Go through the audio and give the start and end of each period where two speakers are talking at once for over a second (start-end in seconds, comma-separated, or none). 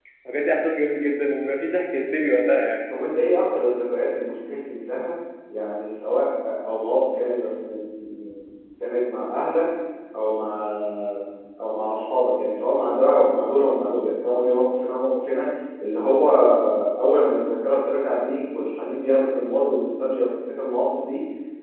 none